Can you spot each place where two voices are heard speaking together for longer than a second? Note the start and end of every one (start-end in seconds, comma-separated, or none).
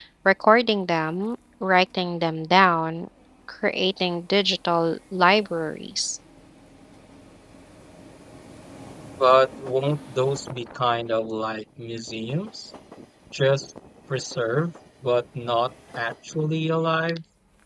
none